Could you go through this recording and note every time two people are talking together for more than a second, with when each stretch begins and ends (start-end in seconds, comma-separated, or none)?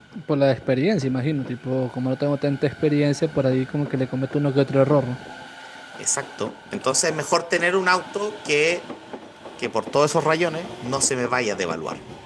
none